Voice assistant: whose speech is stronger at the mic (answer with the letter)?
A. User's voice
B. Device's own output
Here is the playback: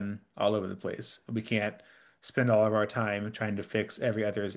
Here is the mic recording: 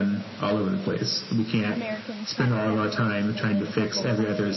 B